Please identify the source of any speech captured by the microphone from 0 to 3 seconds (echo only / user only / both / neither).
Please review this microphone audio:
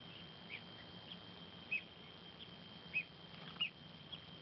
neither